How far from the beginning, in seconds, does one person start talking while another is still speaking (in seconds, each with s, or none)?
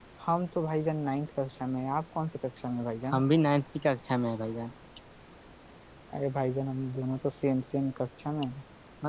none